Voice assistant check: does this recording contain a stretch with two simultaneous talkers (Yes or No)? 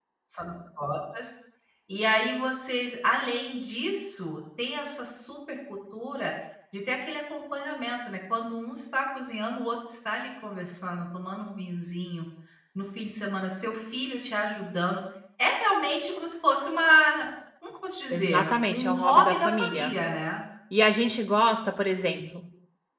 Yes